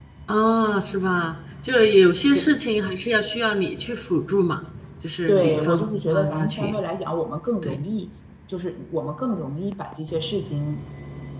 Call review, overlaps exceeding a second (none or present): present